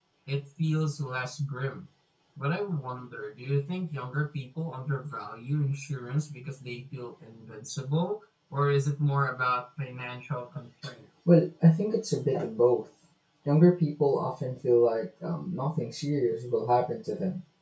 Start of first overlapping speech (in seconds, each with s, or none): none